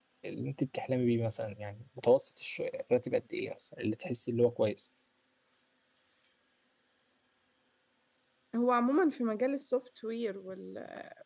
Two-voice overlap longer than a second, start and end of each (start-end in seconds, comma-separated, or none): none